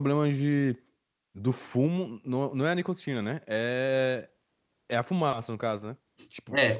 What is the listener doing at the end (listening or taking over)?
taking over